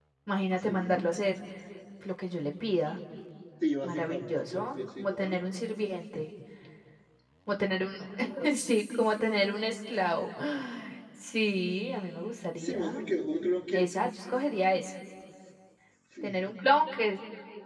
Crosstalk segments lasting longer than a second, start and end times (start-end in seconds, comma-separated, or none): 3.8-5.3